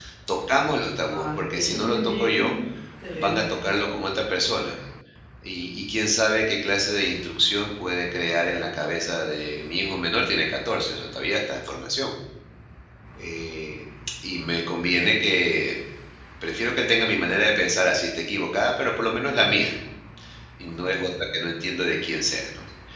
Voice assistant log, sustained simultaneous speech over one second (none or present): present